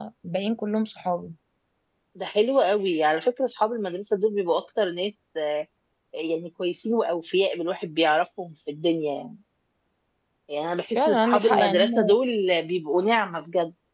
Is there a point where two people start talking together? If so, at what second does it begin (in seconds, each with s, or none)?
10.9 s